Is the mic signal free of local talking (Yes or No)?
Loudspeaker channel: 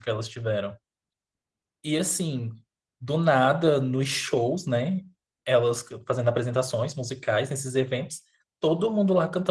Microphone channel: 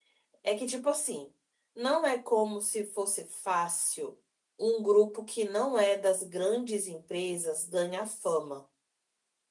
No